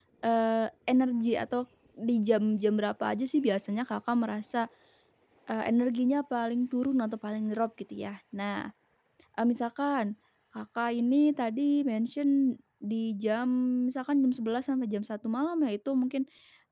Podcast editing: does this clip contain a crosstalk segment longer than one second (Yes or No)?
No